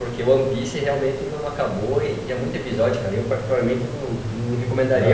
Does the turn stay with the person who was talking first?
No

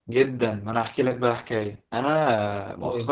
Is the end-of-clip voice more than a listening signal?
No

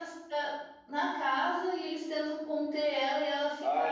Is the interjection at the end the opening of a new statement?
Yes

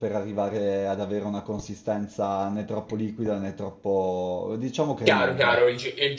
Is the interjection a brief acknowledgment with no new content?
No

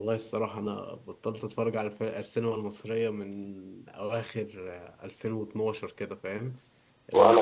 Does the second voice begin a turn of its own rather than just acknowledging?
No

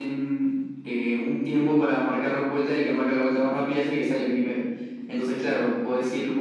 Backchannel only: Yes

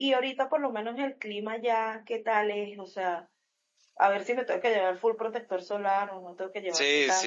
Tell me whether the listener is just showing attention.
No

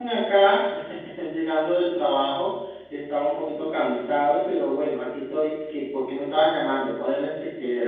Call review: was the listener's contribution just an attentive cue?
No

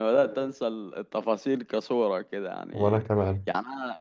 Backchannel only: Yes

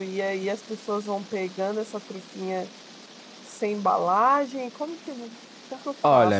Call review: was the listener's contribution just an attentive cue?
No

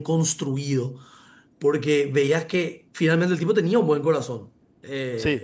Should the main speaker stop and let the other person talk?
No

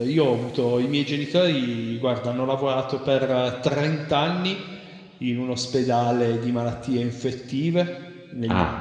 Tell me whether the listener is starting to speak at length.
No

